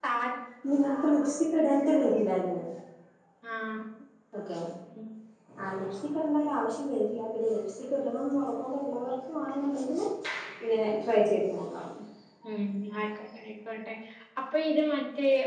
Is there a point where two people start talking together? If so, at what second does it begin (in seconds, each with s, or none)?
none